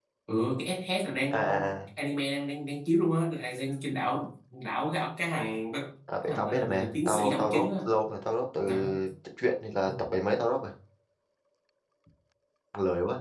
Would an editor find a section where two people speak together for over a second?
Yes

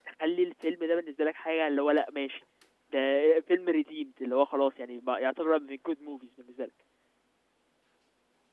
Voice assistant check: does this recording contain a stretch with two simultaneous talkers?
No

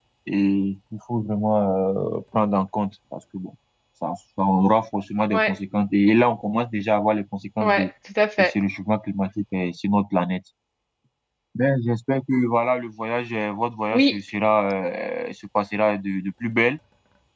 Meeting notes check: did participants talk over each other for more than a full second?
No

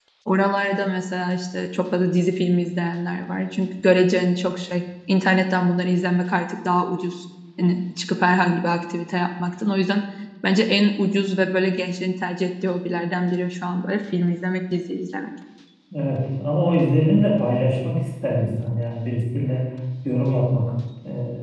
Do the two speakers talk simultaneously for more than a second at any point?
No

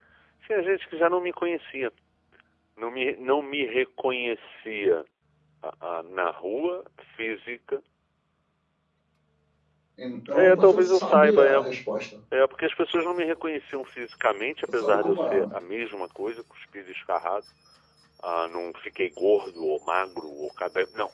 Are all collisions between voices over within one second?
No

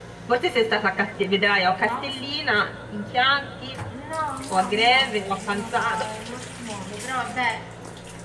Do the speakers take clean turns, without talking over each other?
No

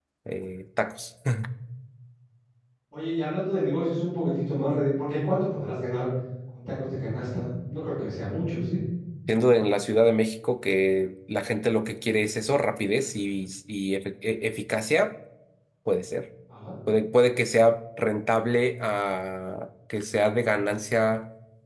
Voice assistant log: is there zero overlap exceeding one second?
Yes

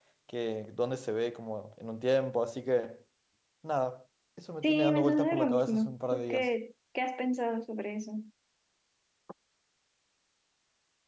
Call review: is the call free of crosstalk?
No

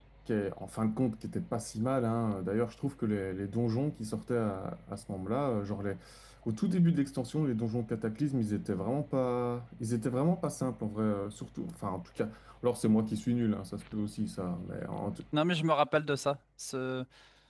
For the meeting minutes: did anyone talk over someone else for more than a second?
No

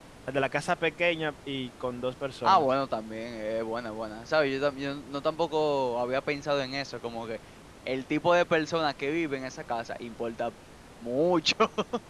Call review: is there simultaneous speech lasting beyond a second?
No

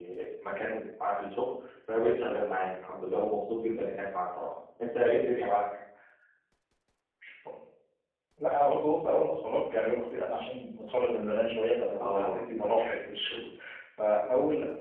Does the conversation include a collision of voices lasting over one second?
No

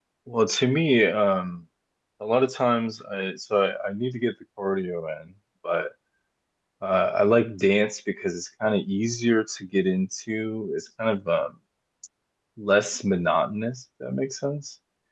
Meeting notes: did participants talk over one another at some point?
No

